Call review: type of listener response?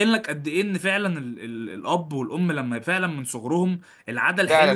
taking over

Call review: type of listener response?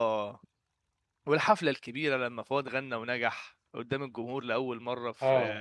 taking over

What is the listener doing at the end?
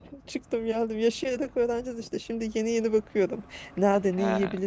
listening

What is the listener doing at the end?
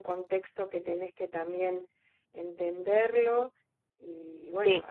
listening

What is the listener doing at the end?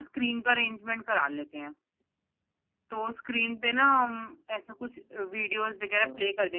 listening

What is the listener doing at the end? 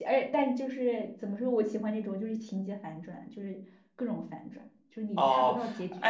taking over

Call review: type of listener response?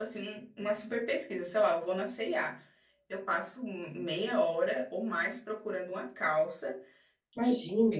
listening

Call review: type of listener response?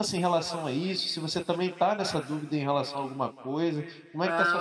taking over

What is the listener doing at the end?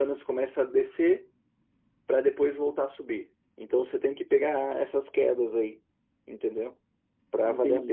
taking over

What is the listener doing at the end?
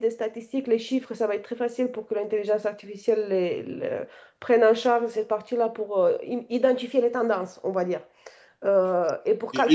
taking over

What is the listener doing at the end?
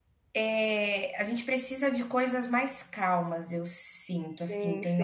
taking over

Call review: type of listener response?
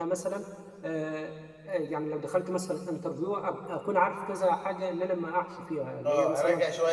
taking over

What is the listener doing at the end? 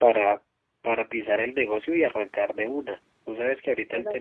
listening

